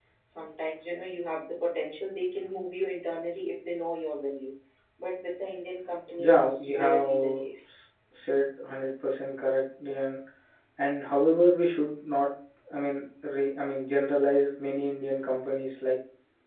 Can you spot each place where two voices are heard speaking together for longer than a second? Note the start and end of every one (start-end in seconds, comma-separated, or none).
6.2-7.7